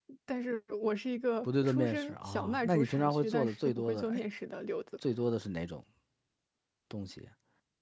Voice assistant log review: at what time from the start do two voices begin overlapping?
1.4 s

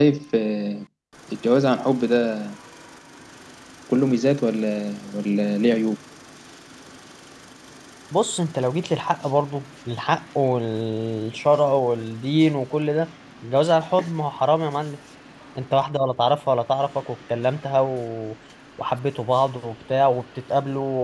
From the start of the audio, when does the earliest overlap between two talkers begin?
none

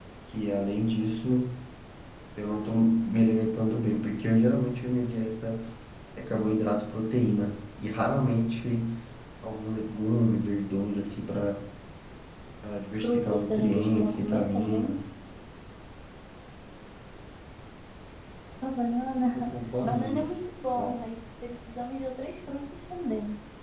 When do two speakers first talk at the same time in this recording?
13.0 s

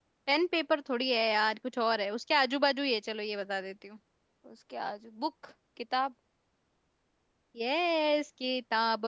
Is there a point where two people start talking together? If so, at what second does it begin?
none

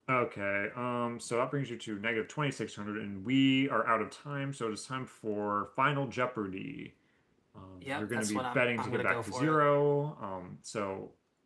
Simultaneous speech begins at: 7.8 s

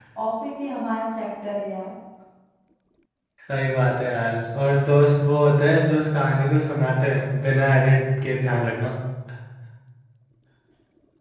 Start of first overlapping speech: none

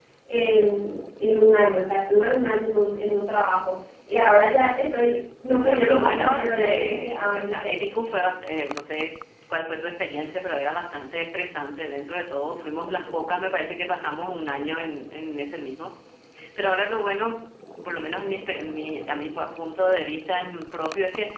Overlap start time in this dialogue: 5.6 s

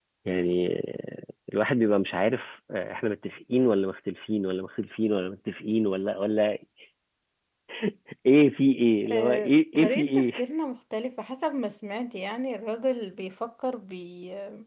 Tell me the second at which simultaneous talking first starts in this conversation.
9.1 s

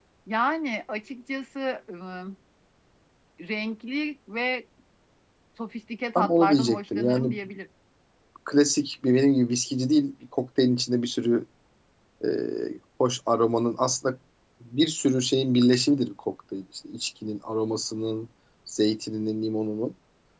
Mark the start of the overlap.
6.2 s

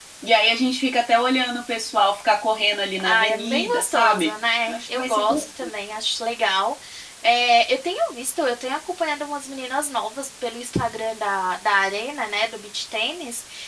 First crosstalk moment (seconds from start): 3.0 s

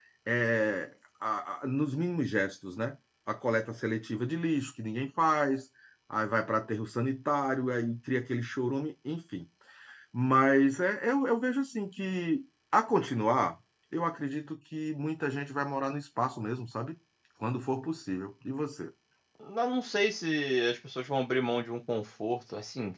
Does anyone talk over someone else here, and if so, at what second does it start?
none

